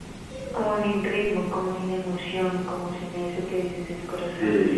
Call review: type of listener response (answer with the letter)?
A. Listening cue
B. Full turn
A